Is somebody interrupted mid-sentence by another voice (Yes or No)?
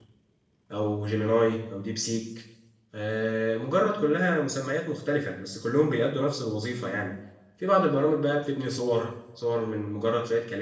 No